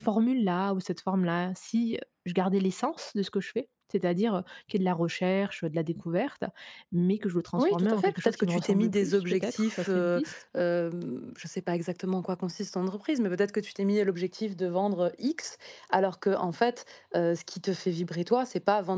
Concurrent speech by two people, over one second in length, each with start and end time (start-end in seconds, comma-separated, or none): 7.6-10.3